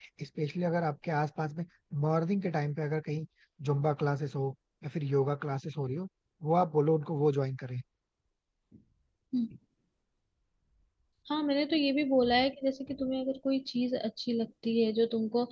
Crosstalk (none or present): none